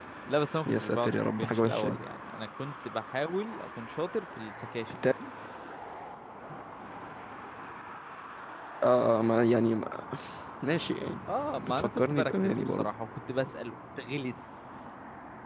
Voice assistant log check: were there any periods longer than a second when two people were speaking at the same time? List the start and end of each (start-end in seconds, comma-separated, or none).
0.7-2.0, 11.5-12.9